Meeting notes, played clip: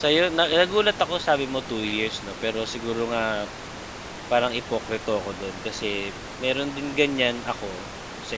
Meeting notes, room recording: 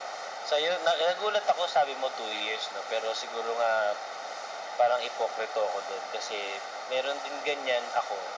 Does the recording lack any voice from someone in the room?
Yes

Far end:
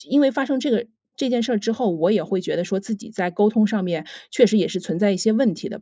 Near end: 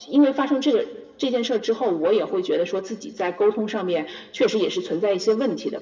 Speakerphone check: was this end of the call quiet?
Yes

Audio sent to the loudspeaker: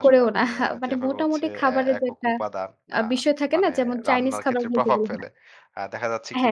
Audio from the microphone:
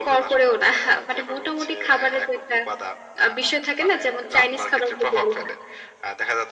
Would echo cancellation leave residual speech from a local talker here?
No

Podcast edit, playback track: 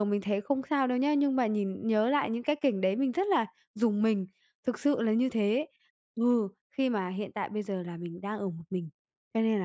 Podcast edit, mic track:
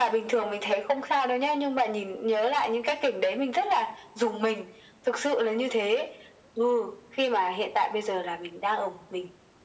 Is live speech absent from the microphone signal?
Yes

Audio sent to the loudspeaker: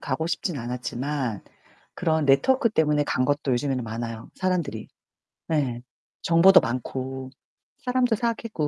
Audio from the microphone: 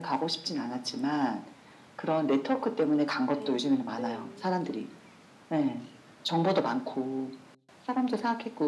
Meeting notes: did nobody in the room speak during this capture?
No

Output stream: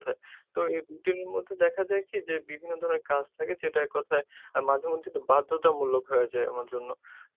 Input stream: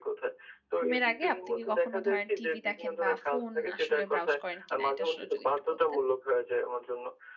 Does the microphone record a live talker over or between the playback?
Yes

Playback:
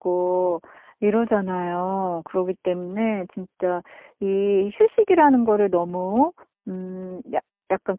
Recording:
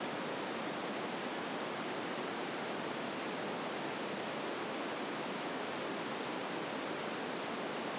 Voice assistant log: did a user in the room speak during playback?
No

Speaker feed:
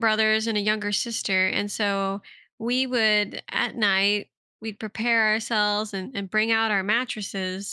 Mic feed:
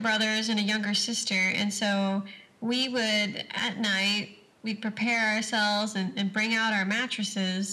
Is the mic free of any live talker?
Yes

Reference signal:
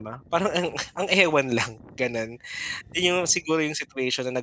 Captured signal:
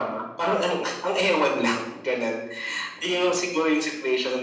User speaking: No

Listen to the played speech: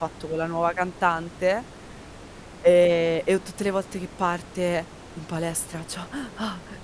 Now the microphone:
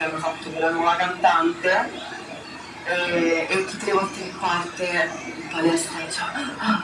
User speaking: No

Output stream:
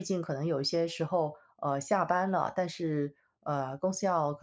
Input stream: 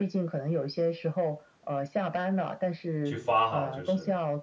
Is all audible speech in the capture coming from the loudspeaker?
No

